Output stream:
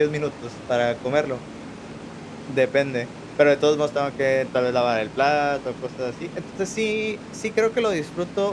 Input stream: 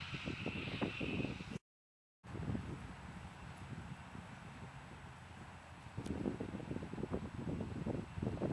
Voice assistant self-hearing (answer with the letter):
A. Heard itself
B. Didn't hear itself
B